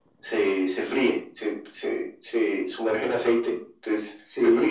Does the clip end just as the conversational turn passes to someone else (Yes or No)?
No